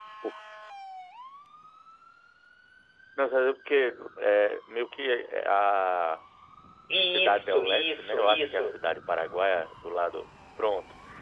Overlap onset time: 7.1 s

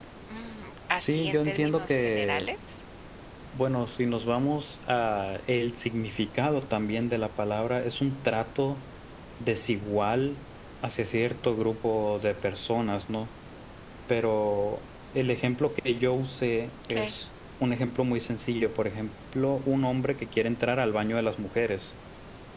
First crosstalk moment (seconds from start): 1.0 s

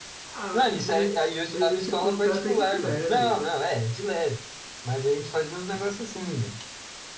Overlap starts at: 0.5 s

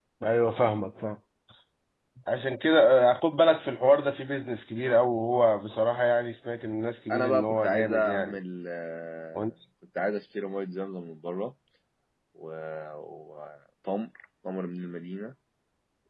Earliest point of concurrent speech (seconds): 7.1 s

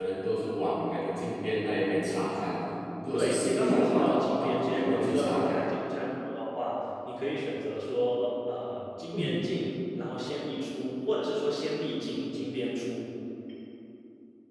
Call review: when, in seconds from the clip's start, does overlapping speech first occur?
3.1 s

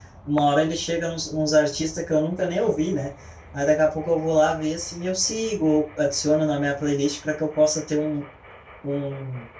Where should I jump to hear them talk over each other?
none

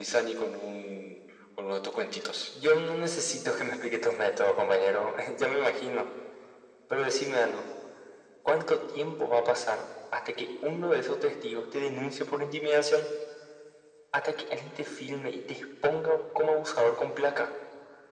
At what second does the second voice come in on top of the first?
none

